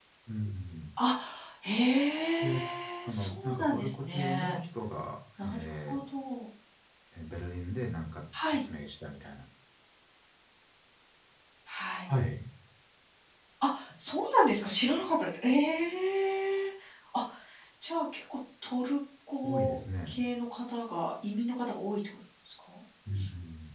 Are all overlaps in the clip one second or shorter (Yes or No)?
No